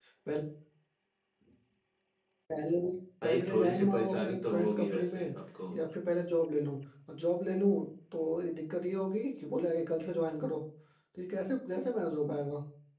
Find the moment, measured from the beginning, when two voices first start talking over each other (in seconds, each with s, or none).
3.2 s